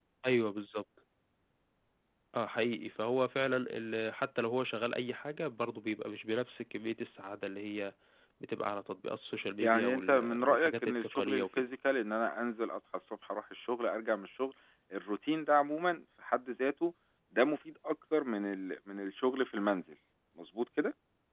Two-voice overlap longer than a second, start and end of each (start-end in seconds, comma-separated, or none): 9.6-11.7